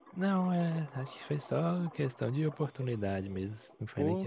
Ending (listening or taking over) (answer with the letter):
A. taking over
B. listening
A